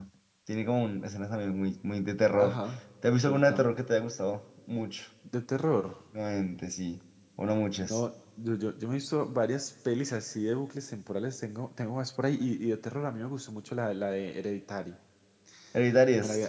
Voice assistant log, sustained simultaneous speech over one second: none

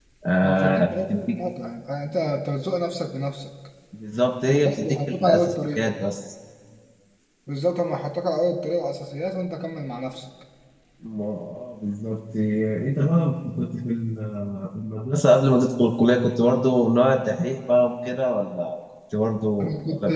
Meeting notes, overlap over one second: present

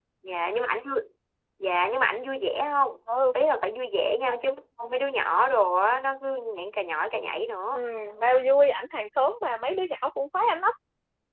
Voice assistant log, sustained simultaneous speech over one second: none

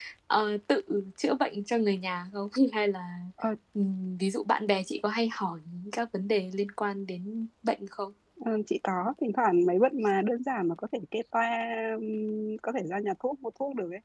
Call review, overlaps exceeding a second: none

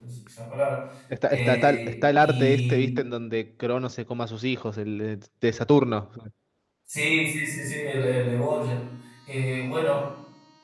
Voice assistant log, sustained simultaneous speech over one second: present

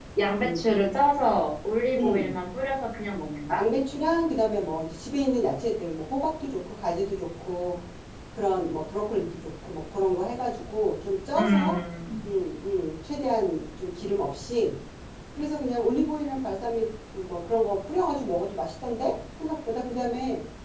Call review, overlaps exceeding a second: none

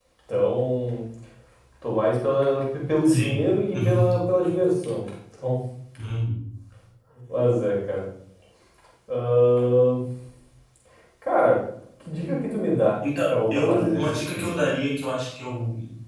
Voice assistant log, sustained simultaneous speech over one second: present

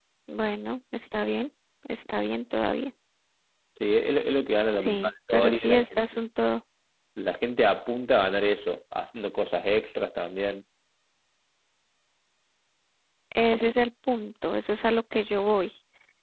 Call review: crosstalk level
present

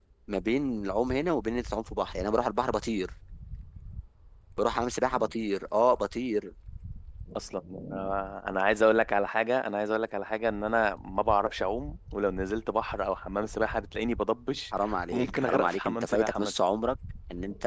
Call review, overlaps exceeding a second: present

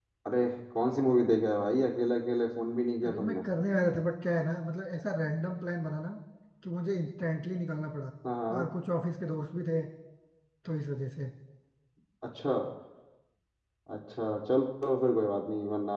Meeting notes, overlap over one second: none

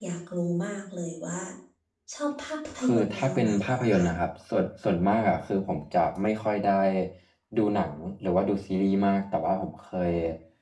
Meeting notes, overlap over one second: present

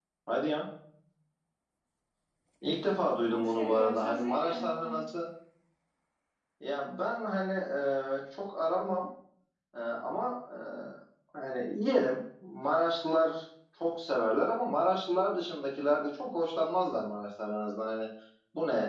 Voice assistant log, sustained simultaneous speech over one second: present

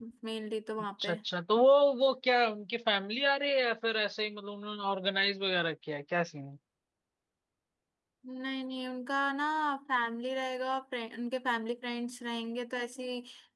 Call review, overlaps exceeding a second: none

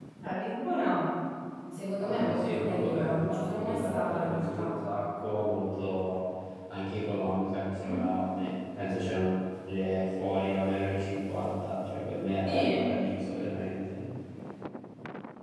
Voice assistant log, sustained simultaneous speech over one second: present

